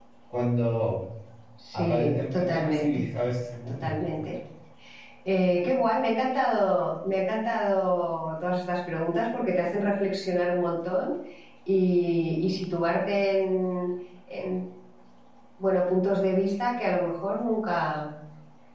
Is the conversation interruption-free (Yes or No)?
No